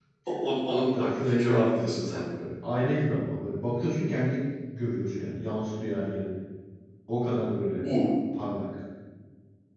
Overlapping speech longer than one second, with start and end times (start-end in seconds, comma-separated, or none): 0.7-2.2